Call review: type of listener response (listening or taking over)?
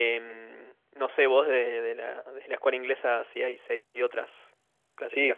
taking over